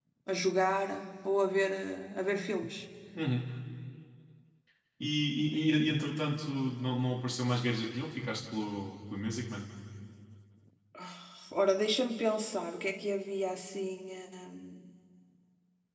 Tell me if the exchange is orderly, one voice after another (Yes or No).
Yes